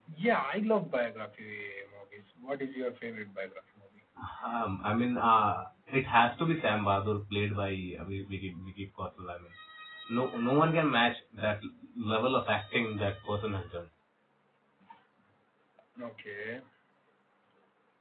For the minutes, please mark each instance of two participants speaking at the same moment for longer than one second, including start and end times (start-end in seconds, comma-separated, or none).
none